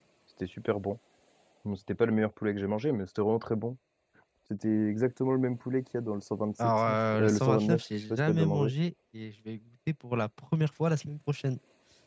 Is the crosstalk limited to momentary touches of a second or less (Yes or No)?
No